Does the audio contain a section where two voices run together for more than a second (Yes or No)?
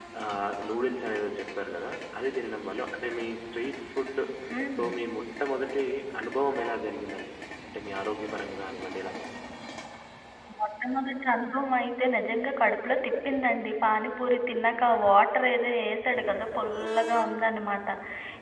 No